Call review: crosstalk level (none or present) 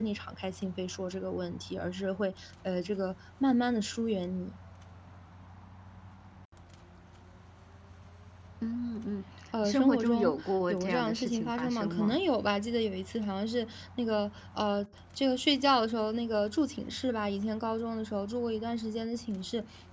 present